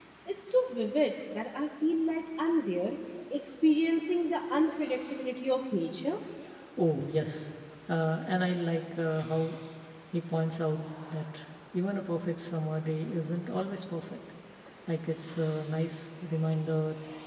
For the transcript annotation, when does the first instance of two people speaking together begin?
none

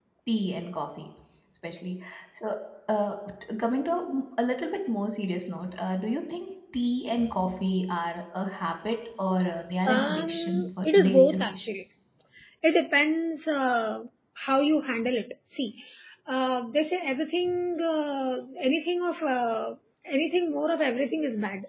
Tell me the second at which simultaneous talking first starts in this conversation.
9.9 s

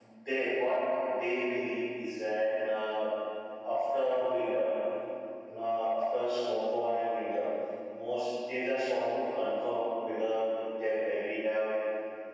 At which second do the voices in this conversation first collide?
none

